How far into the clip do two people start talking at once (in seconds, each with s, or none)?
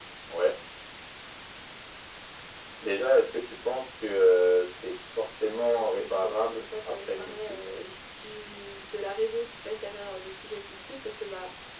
5.5 s